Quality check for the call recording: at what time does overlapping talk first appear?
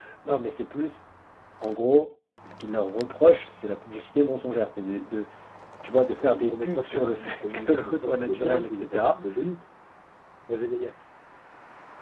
6.2 s

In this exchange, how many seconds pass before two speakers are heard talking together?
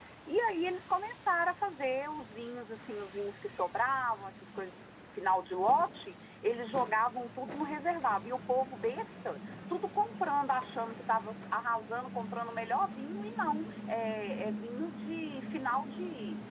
none

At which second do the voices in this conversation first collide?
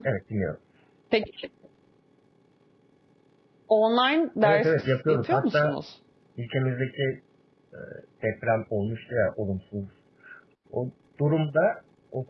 4.4 s

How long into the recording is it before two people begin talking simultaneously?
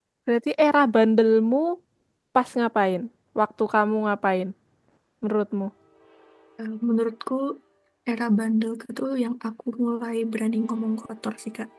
none

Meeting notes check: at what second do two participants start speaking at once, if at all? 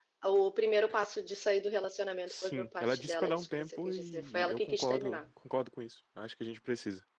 2.2 s

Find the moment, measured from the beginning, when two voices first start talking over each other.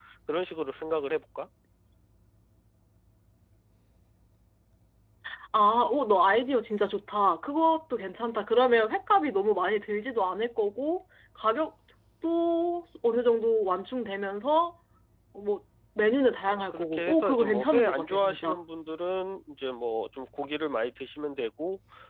16.5 s

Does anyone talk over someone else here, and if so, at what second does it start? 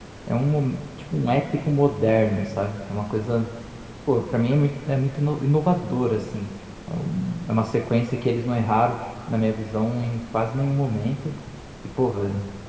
none

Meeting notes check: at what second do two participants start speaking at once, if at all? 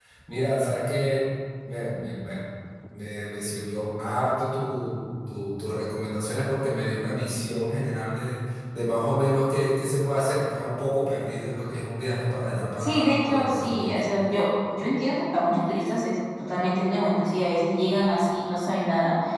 12.8 s

